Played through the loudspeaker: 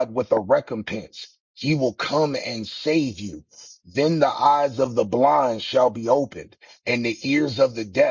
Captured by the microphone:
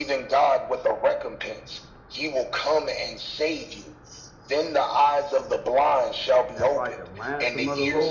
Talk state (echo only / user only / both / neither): both